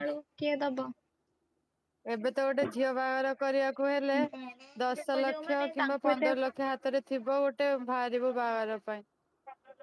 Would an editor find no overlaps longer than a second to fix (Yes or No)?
No